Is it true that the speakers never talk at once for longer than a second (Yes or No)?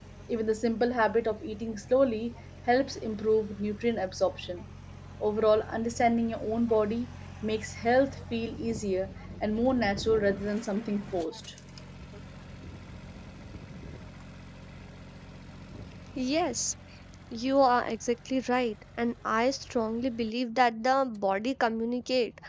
Yes